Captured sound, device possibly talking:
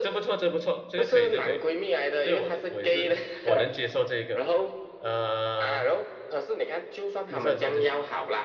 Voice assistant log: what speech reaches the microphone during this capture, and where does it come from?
both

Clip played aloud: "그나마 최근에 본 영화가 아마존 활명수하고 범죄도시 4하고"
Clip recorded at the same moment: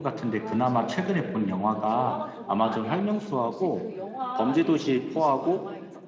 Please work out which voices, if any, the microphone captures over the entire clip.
both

